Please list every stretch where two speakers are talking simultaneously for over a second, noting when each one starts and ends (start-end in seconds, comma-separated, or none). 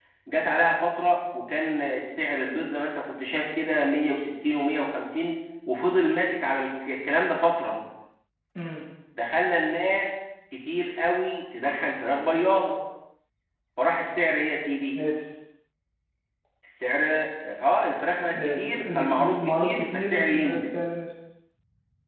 18.4-20.7